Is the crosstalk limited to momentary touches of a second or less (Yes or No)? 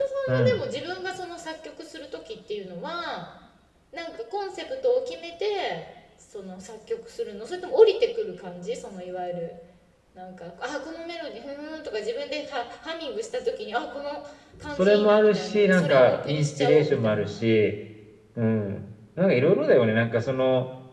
No